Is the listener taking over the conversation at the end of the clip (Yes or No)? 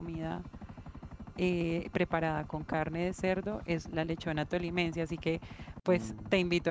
No